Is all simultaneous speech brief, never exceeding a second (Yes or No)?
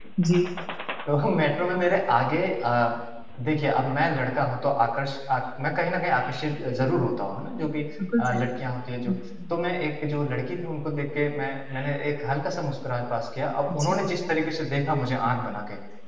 Yes